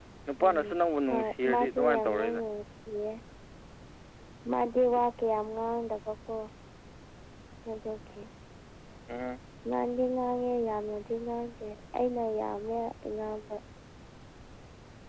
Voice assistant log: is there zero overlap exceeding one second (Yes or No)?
No